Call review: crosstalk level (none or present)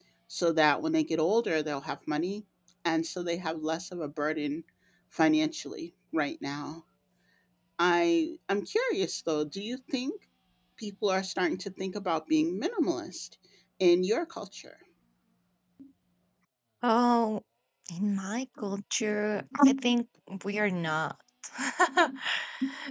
none